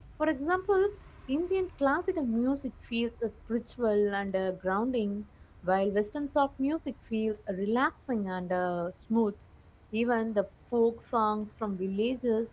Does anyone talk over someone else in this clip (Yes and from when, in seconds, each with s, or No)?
No